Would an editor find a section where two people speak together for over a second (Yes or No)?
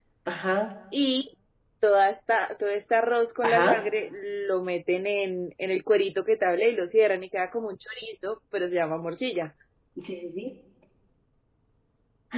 No